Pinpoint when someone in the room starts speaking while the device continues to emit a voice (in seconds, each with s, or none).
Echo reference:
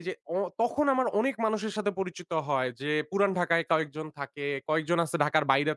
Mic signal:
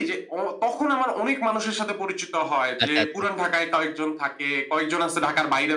2.8 s